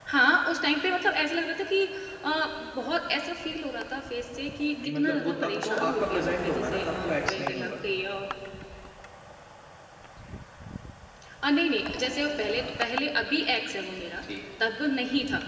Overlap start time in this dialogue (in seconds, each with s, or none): 4.8 s